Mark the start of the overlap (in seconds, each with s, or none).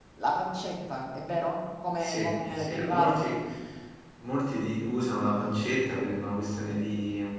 2.0 s